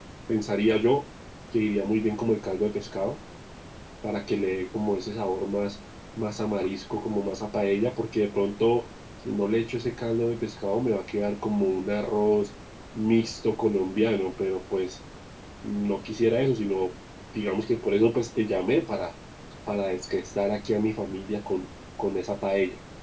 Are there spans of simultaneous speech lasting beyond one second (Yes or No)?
No